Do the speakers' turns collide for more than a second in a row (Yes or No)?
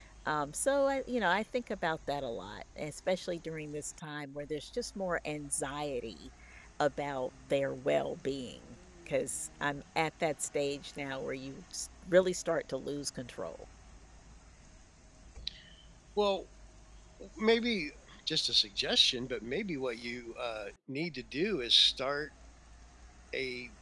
No